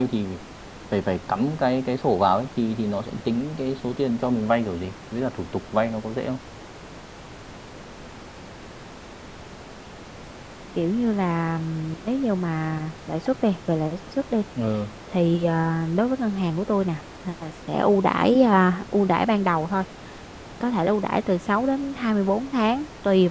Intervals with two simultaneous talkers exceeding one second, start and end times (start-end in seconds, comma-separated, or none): none